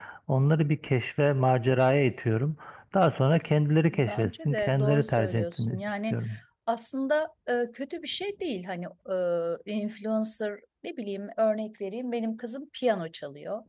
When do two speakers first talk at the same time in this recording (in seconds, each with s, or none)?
3.9 s